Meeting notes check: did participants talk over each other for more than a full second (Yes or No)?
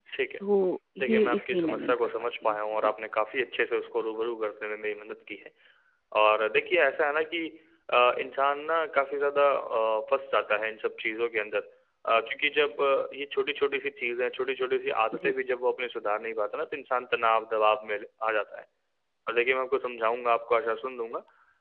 Yes